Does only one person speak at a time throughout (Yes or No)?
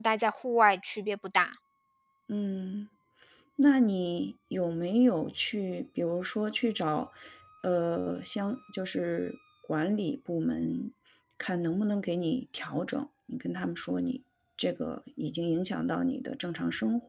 Yes